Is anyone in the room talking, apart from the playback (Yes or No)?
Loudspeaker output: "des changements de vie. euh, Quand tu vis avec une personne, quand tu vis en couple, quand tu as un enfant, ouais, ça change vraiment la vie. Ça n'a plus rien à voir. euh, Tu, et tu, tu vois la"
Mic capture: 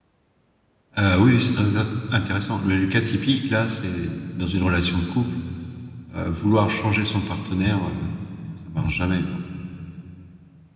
Yes